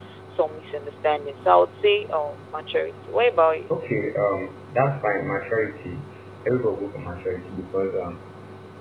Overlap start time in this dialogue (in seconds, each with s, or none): none